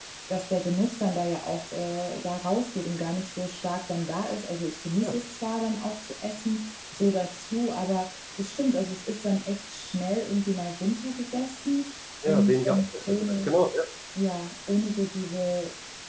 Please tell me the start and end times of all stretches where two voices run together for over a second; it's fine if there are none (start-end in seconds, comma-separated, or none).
12.2-13.5